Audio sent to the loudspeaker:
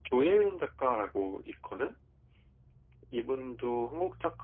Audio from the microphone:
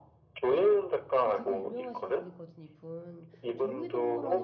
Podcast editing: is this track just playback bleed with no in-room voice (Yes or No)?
No